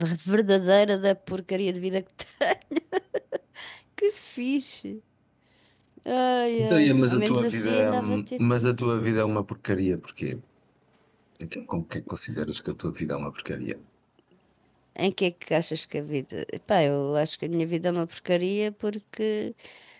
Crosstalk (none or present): present